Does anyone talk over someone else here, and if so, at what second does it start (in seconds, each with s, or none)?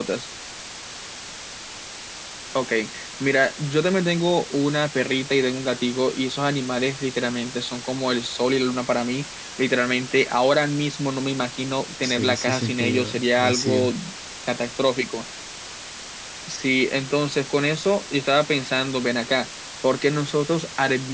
12.0 s